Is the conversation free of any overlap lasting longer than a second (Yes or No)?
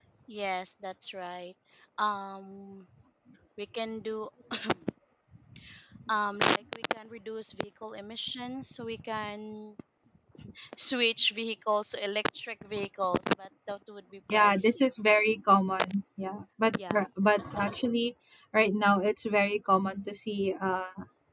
Yes